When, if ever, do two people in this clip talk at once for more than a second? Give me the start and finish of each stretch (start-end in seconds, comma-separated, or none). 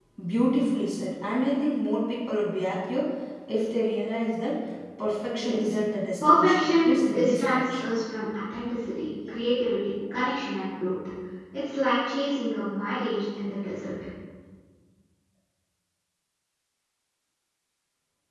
6.2-7.9